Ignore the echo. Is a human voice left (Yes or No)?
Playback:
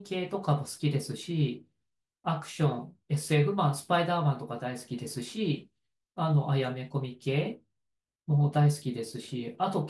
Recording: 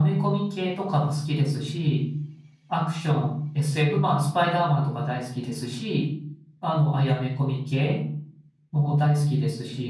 No